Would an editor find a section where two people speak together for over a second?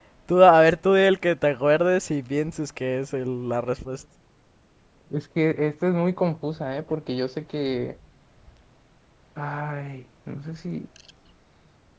No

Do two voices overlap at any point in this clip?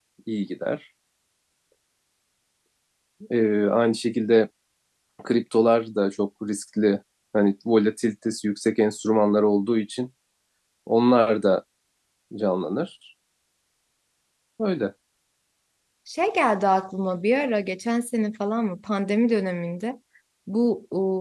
No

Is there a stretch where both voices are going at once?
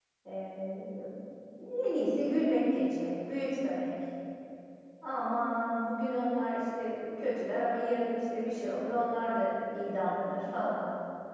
No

